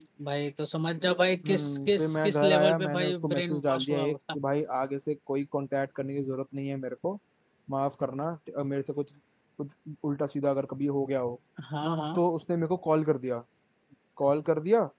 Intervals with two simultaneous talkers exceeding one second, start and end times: 1.4-4.2

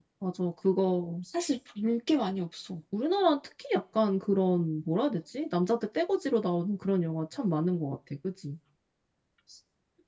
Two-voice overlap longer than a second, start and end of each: none

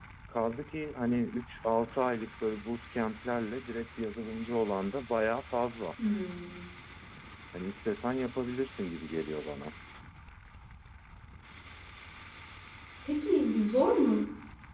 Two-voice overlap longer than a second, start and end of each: none

